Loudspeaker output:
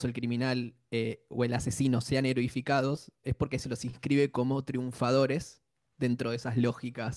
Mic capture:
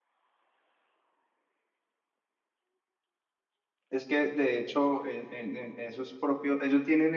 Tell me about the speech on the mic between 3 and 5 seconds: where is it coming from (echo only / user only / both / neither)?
user only